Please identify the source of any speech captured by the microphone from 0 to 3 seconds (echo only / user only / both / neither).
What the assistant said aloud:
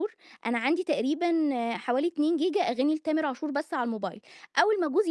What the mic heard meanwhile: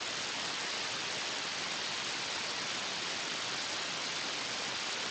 neither